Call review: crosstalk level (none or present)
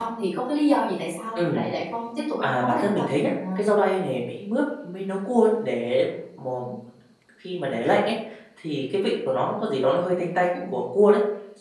present